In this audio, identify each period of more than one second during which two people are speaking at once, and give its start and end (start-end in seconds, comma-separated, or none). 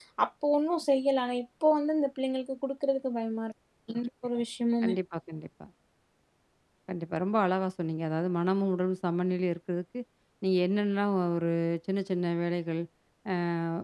none